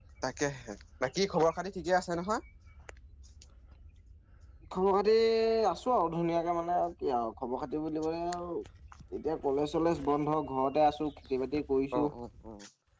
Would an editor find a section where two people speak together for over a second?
No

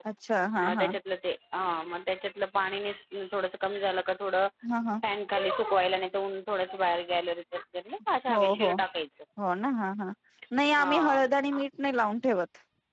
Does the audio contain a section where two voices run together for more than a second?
No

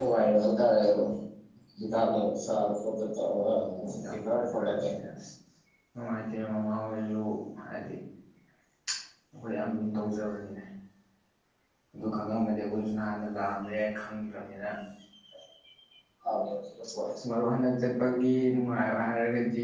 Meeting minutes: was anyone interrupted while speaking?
Yes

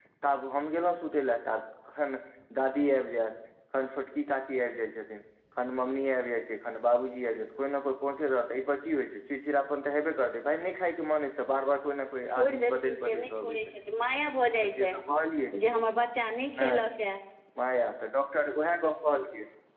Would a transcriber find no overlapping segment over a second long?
No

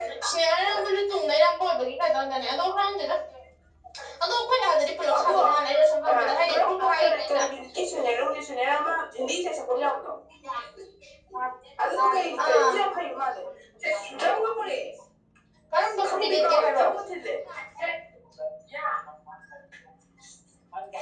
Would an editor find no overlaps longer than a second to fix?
No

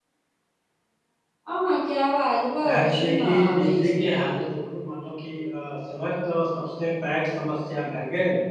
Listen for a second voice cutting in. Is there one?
Yes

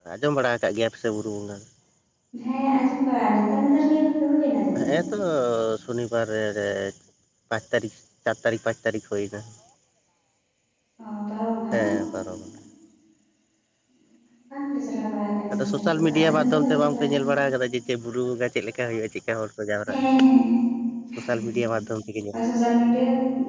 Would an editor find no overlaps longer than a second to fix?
No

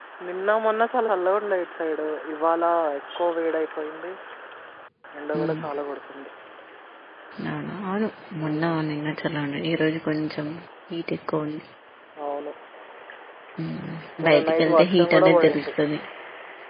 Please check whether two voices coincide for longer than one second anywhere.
Yes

